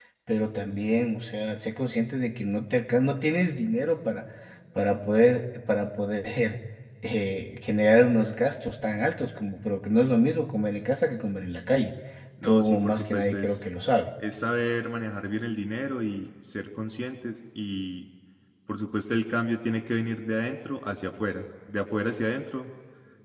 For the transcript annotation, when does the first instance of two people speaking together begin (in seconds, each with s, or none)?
12.4 s